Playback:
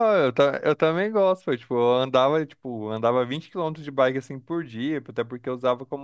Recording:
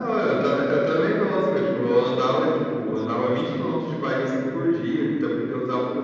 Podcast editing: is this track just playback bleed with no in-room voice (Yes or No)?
Yes